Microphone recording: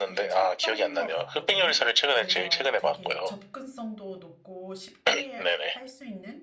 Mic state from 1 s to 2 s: both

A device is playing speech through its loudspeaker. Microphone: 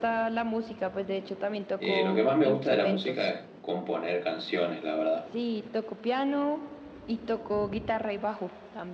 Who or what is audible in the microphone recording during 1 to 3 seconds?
both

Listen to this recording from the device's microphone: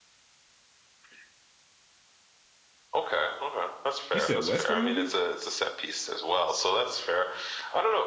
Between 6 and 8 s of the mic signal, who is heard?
echo only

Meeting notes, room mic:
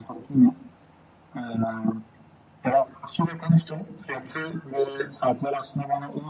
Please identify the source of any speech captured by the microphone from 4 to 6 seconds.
echo only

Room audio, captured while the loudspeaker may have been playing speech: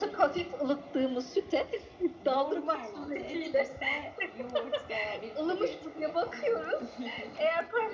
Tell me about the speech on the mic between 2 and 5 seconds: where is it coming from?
both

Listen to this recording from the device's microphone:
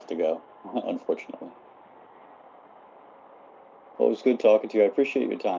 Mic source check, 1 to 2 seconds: echo only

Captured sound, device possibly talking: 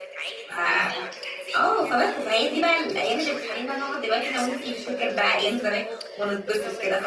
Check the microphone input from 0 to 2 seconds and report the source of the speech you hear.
both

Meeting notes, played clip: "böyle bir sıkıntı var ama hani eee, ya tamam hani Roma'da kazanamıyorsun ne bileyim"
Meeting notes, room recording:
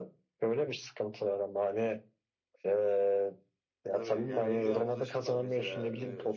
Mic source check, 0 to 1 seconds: echo only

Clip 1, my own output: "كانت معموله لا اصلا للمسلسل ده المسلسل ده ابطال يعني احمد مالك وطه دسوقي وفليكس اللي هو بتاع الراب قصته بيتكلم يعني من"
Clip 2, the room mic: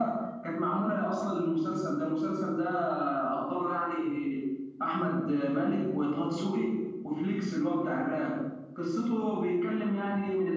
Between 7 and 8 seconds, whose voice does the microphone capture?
echo only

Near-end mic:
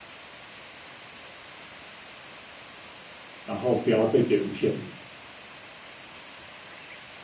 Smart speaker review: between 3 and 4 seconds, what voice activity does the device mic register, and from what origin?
user only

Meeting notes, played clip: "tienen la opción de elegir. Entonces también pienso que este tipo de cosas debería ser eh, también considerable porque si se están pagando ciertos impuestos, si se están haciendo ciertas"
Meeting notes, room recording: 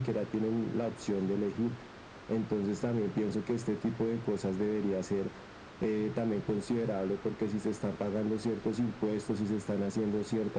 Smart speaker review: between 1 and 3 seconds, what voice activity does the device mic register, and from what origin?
echo only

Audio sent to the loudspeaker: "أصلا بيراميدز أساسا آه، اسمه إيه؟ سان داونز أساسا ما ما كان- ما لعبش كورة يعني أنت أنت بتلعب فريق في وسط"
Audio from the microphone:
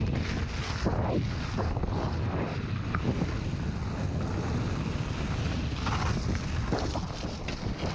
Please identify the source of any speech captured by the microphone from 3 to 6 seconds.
neither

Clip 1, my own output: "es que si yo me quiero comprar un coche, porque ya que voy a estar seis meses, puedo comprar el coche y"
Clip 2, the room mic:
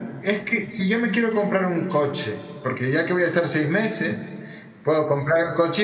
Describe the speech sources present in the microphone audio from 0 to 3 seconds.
echo only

